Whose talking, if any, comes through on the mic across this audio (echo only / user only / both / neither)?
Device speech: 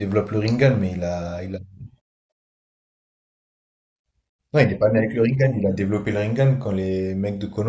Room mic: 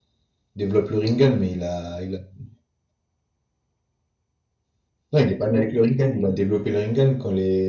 echo only